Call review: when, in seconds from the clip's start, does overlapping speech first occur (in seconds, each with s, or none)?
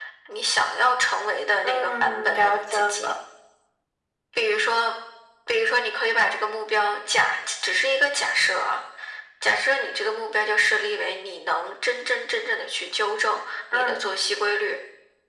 1.6 s